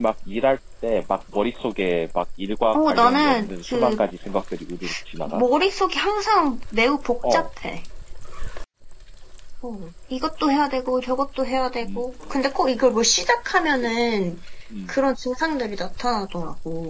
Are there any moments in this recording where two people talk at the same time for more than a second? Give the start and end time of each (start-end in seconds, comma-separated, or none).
2.7-4.0